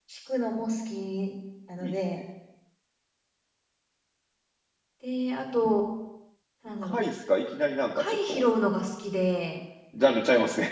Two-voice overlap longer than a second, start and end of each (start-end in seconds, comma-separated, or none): none